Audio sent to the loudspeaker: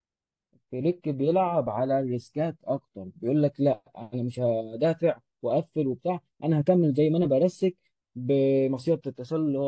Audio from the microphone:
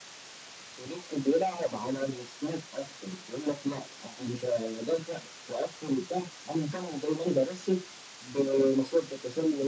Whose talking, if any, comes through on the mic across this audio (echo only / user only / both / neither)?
echo only